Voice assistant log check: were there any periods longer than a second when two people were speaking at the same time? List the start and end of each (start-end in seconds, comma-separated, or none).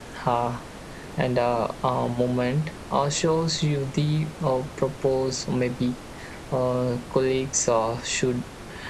none